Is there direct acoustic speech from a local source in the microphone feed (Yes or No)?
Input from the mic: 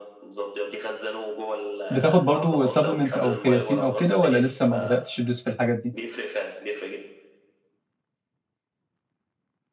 Yes